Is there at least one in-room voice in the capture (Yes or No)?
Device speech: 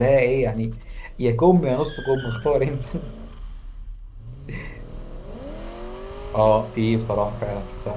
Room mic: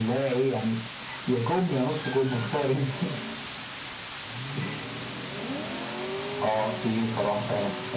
No